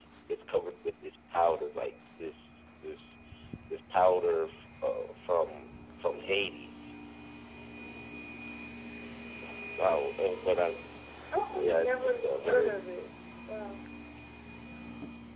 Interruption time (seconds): 11.5 s

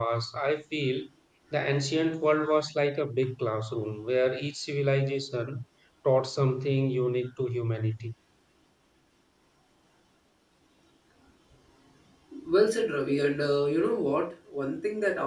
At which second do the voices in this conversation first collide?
none

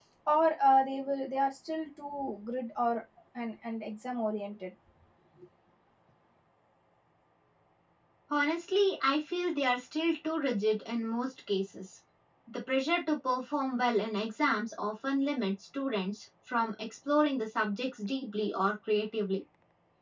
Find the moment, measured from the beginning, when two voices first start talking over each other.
none

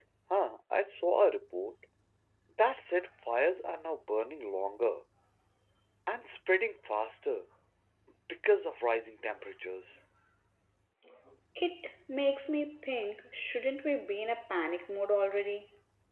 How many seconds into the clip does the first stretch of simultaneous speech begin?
none

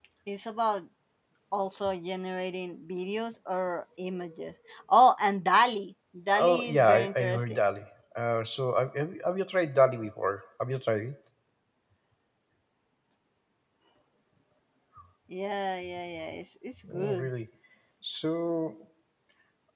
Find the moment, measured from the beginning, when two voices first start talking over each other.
6.3 s

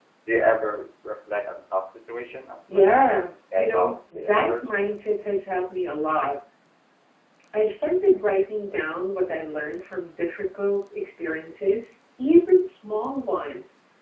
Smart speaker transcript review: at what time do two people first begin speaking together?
2.7 s

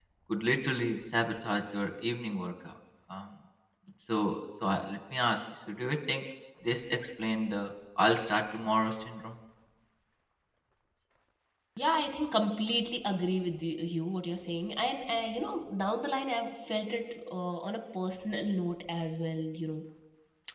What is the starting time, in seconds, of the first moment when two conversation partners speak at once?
none

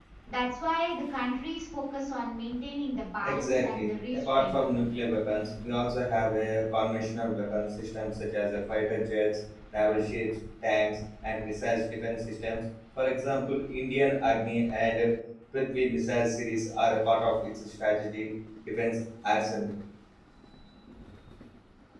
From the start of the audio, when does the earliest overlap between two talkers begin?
3.2 s

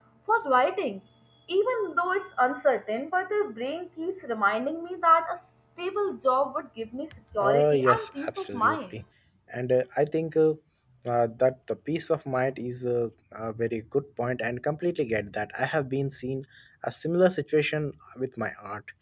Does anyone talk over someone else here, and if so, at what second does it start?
7.3 s

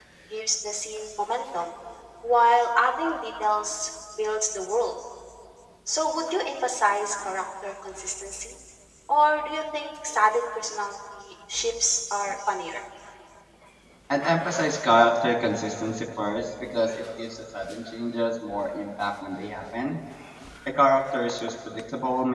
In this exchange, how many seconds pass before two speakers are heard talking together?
none

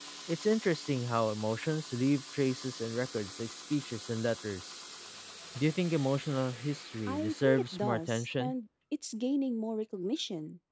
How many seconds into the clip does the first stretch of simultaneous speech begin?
7.1 s

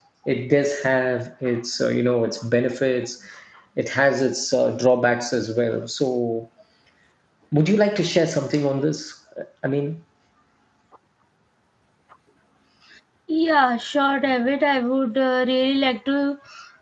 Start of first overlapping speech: none

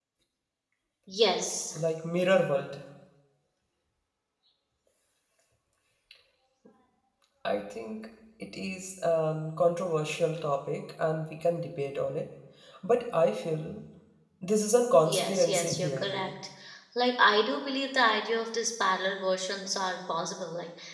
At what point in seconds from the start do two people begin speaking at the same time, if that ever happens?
15.1 s

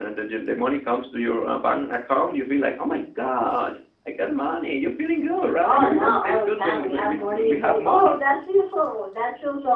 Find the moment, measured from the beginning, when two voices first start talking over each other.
5.6 s

